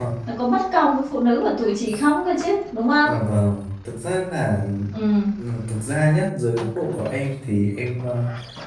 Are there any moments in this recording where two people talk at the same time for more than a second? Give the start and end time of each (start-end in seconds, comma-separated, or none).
none